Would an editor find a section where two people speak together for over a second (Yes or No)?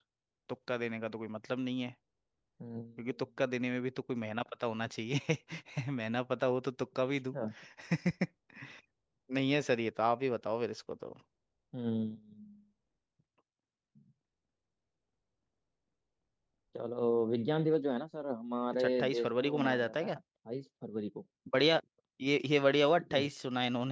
Yes